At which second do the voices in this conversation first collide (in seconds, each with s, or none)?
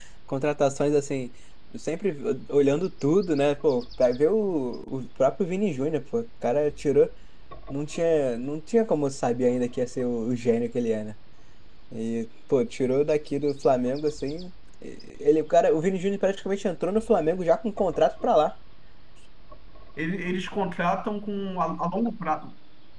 none